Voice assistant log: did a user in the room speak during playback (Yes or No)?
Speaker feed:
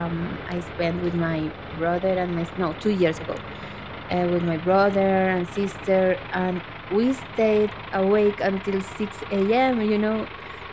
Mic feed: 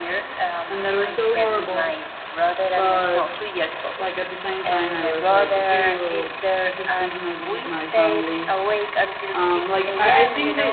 Yes